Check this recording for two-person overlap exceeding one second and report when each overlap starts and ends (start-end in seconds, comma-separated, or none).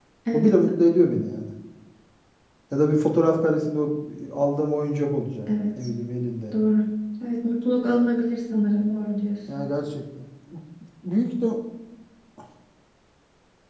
none